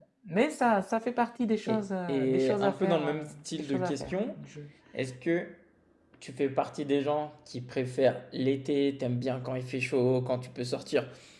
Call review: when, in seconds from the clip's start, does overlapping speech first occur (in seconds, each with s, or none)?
1.7 s